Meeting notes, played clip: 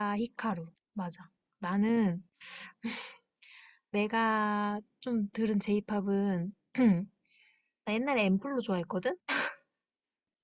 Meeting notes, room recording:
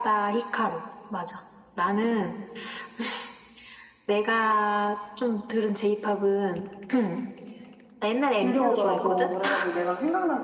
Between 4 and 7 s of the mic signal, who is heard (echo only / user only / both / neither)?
echo only